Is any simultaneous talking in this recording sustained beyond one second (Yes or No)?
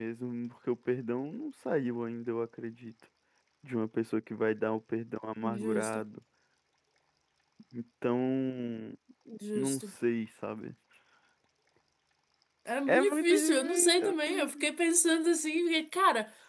Yes